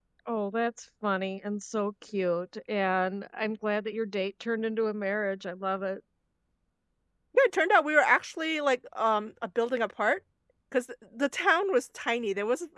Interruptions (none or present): none